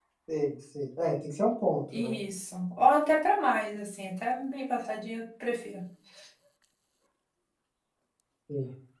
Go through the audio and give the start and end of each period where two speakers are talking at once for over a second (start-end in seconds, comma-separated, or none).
none